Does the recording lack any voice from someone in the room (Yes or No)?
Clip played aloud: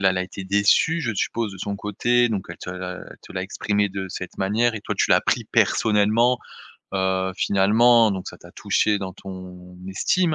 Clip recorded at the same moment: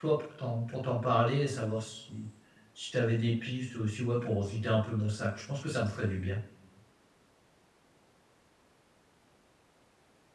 No